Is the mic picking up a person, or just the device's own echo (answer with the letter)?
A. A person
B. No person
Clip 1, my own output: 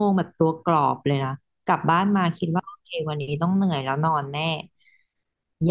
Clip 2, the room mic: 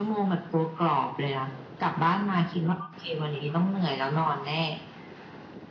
B